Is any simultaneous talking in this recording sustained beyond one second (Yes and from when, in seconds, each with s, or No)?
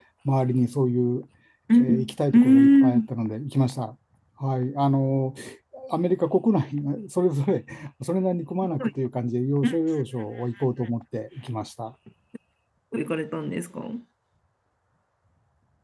Yes, from 1.8 s